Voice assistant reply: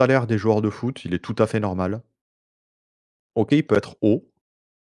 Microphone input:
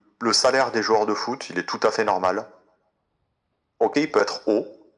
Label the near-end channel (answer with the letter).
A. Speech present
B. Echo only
B